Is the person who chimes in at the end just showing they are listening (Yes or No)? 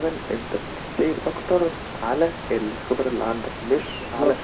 No